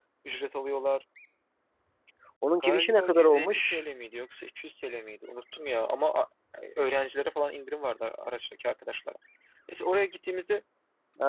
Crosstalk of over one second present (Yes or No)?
Yes